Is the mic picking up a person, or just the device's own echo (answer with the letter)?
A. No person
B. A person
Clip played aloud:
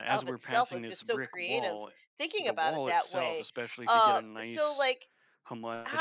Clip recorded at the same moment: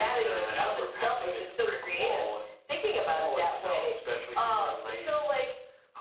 A